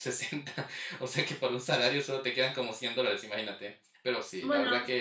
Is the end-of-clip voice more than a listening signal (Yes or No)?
No